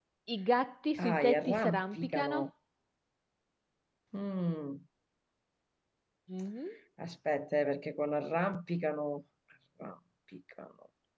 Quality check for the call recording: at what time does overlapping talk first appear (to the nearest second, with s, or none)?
1 s